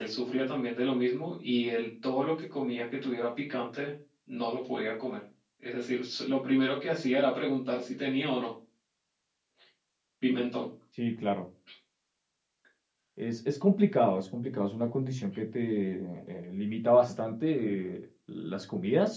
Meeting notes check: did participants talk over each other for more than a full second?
No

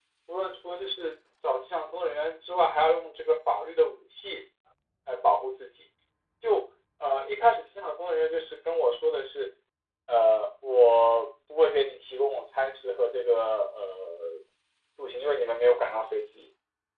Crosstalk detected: No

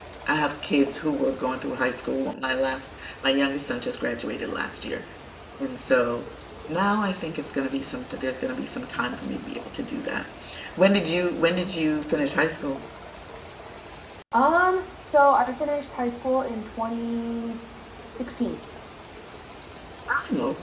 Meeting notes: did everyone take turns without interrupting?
Yes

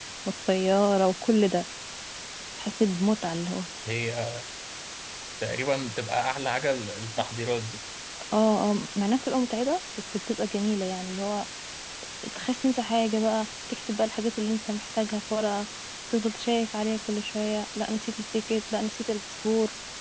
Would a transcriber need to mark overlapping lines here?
No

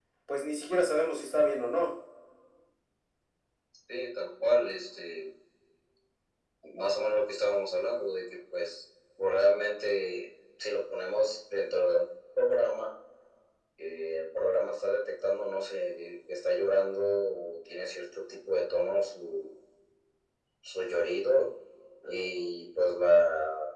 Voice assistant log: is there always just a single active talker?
Yes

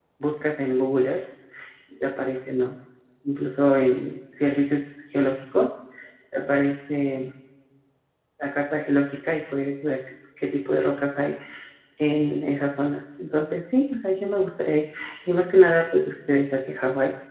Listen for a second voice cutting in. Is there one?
No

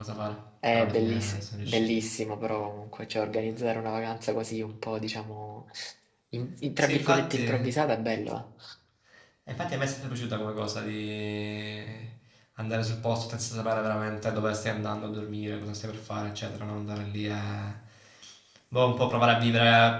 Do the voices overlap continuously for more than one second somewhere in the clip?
Yes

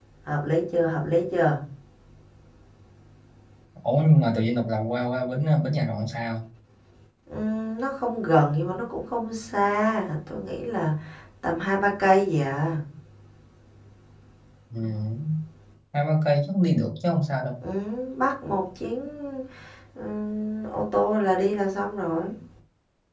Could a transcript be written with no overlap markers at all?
Yes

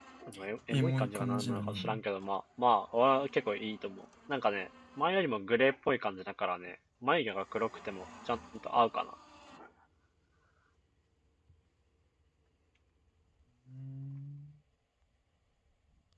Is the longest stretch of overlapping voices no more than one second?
No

